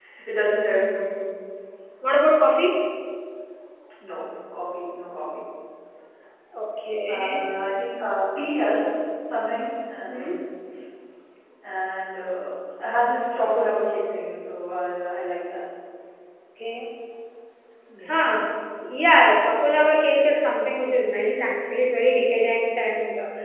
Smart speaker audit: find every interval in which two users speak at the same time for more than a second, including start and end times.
none

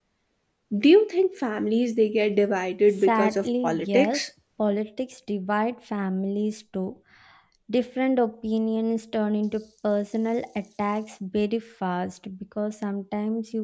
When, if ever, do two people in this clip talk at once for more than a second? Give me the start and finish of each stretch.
3.0-4.2

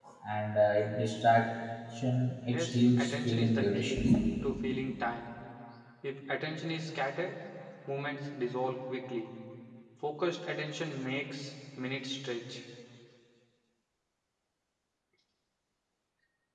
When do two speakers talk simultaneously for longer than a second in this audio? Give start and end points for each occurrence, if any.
2.5-4.0

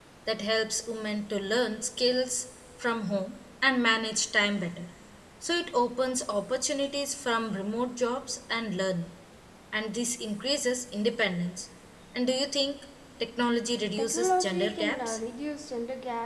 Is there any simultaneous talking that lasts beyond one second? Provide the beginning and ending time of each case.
14.0-15.2

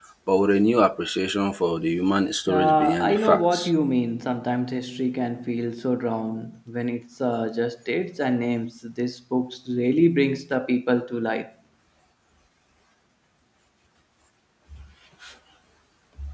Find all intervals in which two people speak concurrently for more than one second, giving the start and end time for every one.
2.5-3.7

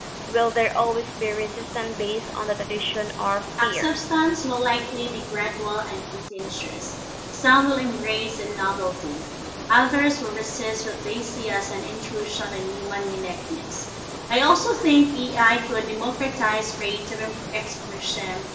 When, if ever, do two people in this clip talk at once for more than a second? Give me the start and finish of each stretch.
none

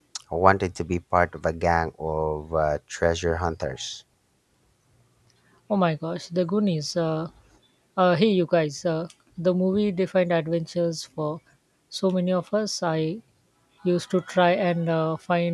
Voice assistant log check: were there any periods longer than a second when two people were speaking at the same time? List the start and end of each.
none

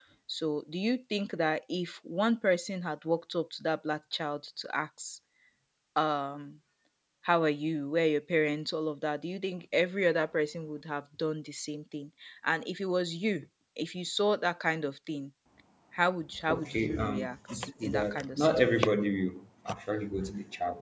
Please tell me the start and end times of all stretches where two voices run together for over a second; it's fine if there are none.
16.5-19.0

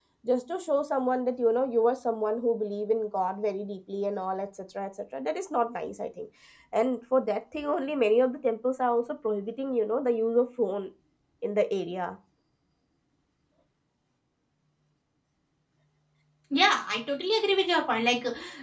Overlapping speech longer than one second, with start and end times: none

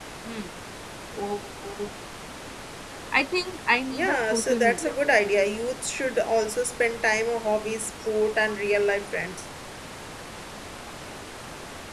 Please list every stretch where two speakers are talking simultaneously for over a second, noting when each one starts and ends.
3.9-5.1

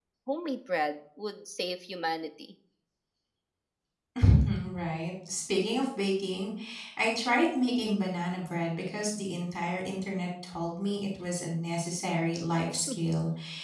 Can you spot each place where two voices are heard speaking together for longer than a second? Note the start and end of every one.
none

